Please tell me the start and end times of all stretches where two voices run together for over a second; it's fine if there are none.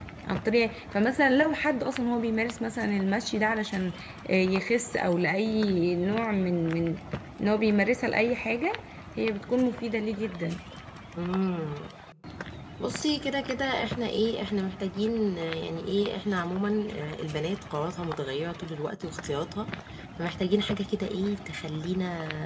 none

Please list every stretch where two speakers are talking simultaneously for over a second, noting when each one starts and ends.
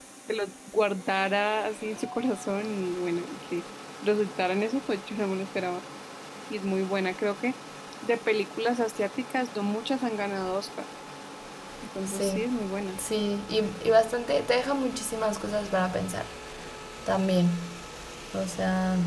none

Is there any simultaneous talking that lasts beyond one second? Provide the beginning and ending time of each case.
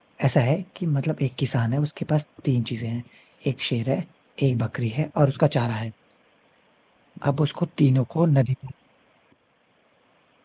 none

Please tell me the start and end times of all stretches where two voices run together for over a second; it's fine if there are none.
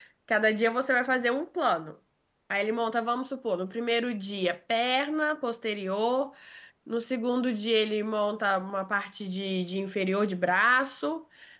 none

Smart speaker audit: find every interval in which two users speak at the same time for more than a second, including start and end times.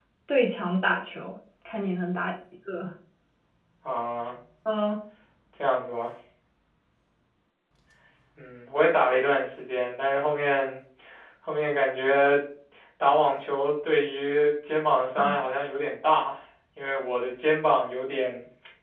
none

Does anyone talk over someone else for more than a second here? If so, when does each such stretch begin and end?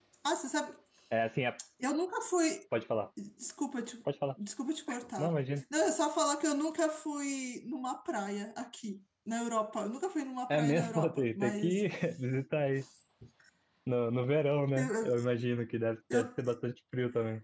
10.5-11.8

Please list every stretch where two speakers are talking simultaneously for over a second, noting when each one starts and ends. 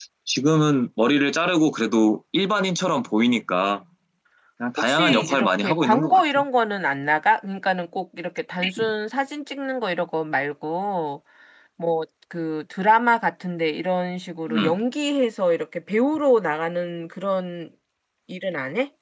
4.8-6.4

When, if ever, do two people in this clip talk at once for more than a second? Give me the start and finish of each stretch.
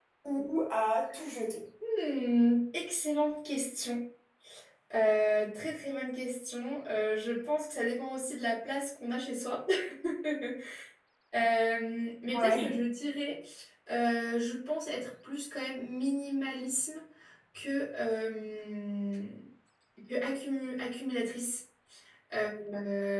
none

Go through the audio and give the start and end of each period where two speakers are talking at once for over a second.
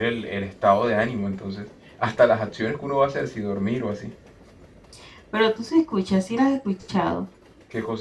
none

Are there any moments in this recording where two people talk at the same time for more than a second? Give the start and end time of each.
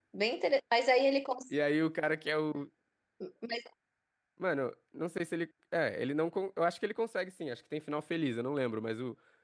none

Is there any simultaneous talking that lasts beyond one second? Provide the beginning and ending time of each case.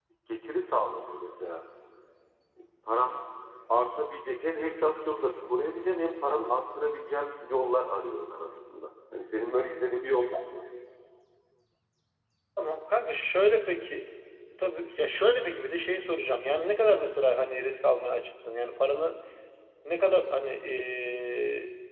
none

